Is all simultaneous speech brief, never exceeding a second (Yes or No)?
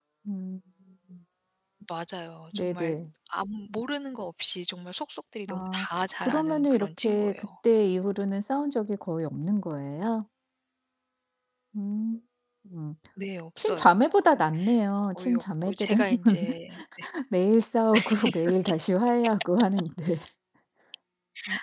No